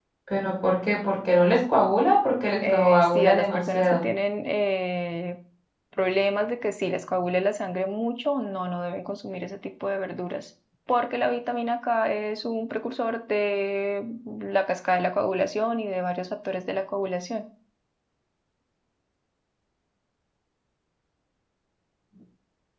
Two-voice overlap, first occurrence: 2.6 s

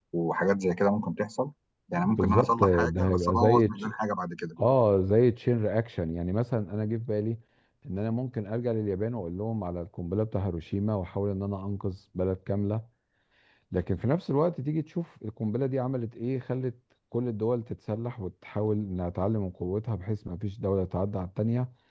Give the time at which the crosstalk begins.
1.9 s

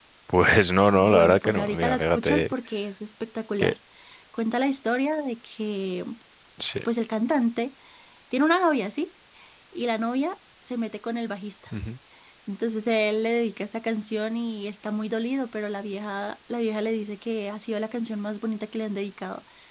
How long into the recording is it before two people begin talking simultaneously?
1.0 s

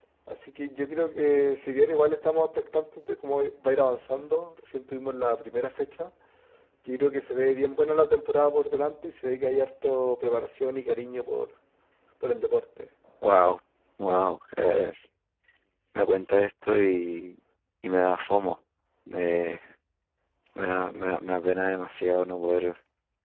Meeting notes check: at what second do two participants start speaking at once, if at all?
none

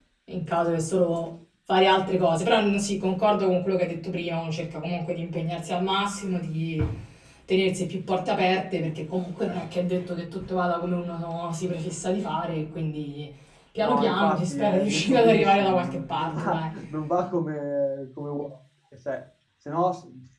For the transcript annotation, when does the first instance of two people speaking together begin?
13.8 s

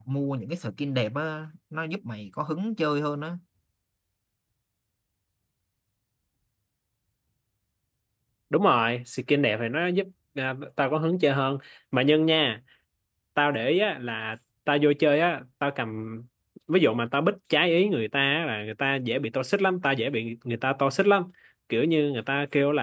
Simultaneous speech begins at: none

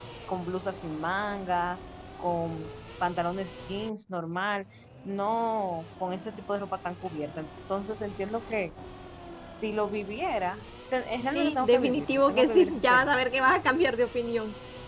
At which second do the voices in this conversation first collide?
11.3 s

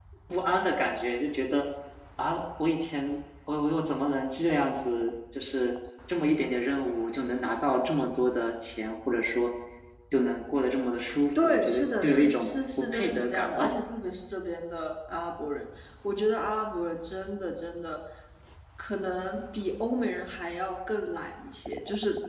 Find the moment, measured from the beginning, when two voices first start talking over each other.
11.3 s

